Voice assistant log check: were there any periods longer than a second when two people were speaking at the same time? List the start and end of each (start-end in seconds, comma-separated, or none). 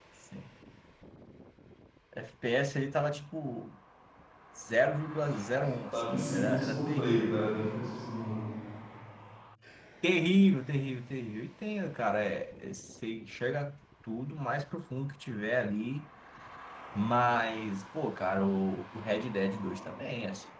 5.9-7.6